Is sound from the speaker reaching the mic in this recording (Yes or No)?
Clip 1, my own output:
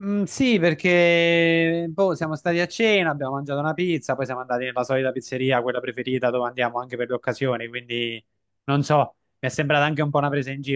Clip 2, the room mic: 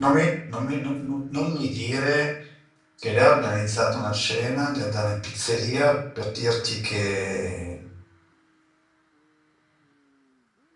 No